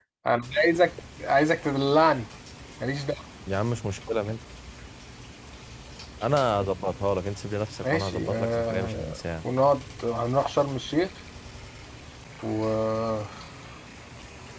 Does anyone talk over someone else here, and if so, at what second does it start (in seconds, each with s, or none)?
7.8 s